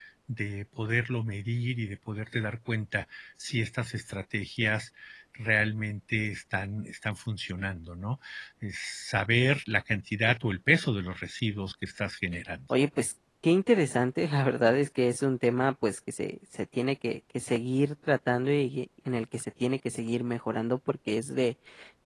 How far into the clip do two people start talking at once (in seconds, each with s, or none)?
none